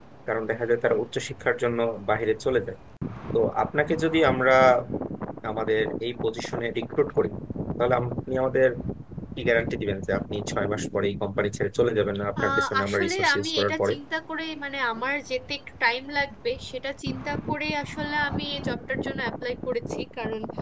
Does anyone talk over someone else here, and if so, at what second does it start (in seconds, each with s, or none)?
12.4 s